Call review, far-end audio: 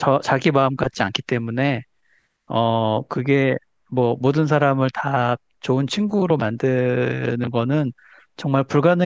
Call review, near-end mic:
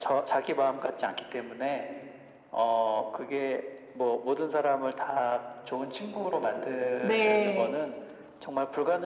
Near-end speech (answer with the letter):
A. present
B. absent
A